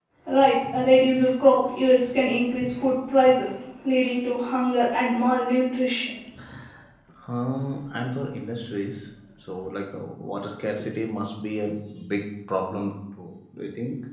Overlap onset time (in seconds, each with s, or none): none